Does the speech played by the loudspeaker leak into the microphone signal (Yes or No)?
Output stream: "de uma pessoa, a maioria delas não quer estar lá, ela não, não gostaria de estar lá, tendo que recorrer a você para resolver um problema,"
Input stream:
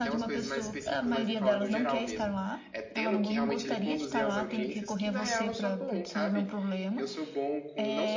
Yes